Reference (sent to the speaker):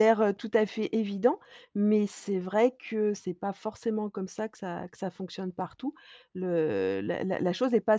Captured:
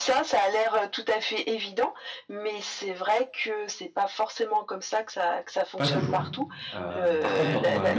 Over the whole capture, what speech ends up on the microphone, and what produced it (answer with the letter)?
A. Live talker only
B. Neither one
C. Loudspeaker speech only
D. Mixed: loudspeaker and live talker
D